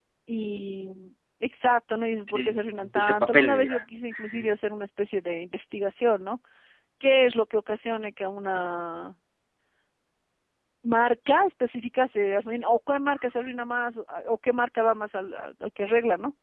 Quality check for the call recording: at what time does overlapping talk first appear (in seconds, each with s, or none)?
2.3 s